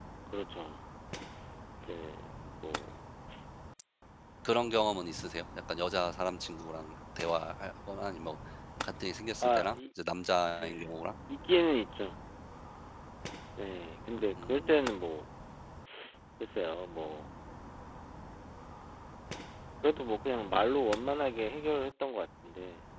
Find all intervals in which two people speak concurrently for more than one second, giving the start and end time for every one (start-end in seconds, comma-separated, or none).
none